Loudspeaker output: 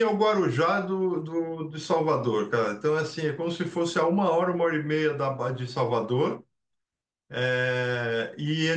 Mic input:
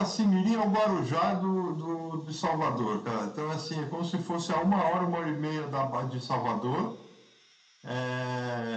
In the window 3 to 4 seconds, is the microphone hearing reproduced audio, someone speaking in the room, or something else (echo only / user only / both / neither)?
echo only